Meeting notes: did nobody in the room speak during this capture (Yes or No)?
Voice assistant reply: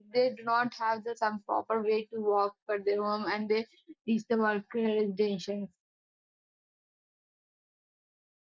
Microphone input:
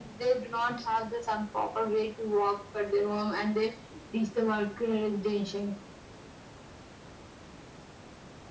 Yes